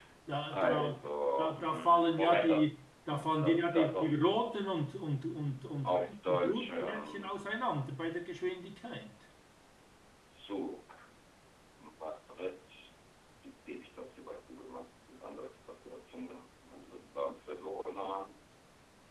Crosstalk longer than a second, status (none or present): present